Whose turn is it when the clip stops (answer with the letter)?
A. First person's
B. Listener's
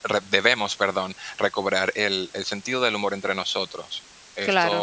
B